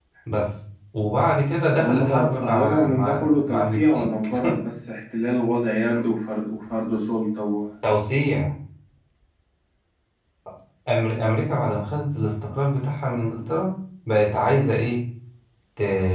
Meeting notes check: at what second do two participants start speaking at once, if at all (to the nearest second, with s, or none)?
2 s